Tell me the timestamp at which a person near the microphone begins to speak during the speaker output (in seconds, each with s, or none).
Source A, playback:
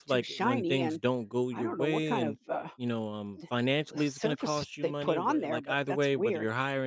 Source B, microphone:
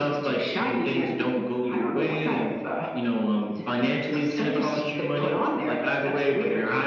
none